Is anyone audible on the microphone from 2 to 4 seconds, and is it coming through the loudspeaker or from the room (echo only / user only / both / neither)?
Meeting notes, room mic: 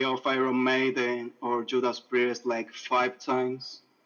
echo only